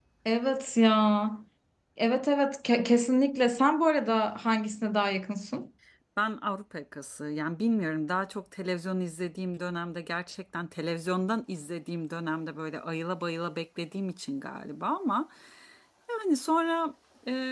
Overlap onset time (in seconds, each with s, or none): none